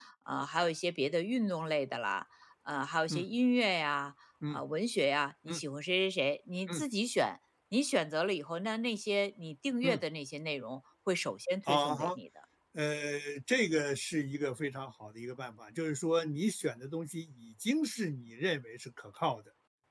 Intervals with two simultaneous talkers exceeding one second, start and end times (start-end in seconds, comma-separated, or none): none